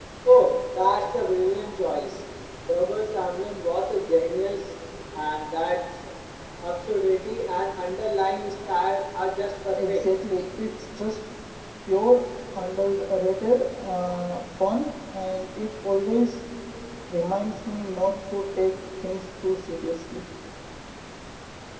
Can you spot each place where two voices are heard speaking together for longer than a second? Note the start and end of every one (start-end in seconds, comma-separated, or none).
none